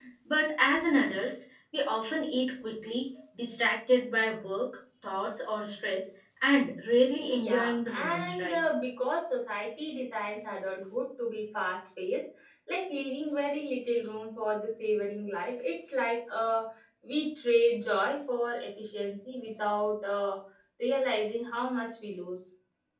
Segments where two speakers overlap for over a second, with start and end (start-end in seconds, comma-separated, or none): 7.3-8.6